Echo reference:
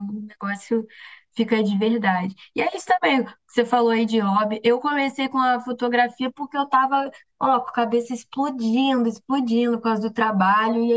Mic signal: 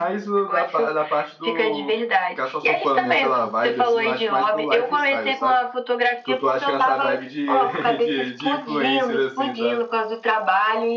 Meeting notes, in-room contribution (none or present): present